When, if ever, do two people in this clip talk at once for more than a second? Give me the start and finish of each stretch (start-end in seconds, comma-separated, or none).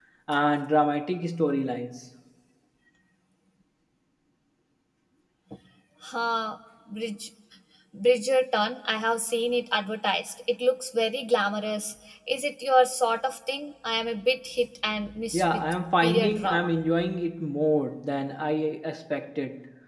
15.3-16.7